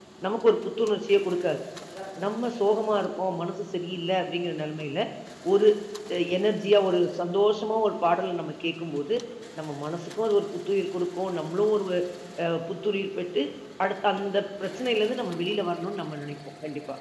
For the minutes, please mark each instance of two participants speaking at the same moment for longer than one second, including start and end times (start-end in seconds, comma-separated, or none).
none